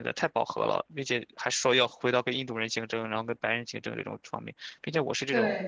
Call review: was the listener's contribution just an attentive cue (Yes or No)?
Yes